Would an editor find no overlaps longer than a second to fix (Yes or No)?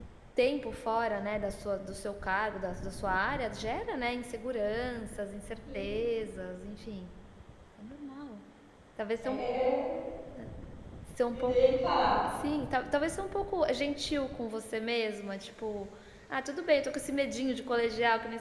Yes